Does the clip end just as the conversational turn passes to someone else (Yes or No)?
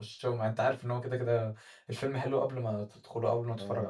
Yes